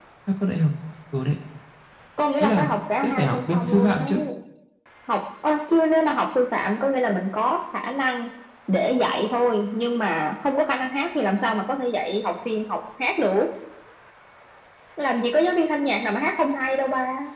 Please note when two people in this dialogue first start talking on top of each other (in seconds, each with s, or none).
2.4 s